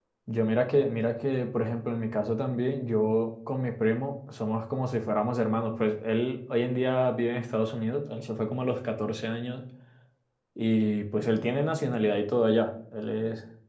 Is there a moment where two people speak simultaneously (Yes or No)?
No